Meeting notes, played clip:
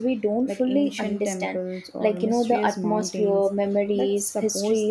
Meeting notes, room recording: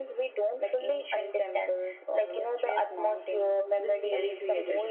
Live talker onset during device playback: 3.8 s

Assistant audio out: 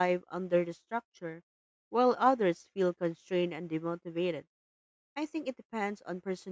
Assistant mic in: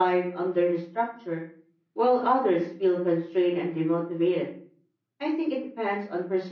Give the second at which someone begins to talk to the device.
none

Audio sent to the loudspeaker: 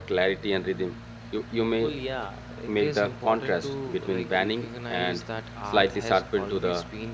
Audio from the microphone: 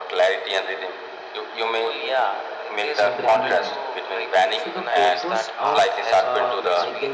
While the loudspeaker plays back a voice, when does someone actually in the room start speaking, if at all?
3.0 s

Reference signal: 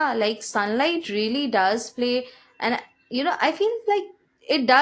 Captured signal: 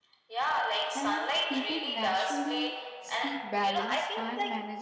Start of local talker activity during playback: 0.9 s

